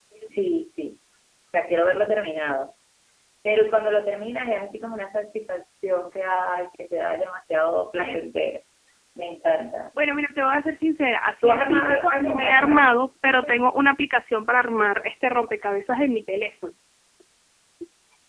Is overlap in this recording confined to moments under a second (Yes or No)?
No